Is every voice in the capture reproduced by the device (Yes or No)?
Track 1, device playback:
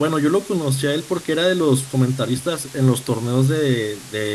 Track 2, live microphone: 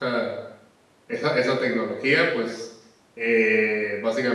No